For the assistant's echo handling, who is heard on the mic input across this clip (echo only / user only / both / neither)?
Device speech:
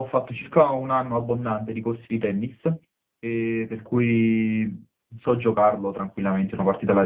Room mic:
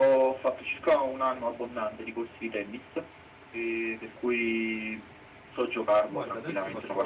both